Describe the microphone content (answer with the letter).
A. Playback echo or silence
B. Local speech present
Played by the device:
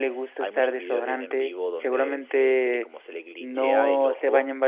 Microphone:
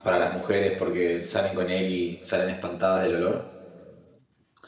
B